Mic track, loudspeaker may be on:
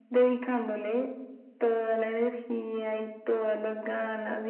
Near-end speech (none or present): none